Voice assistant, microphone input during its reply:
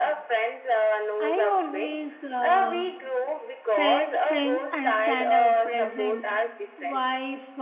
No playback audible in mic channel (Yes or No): No